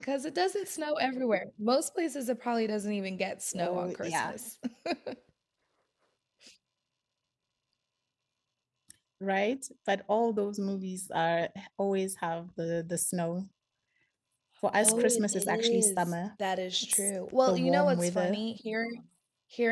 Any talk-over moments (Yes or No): Yes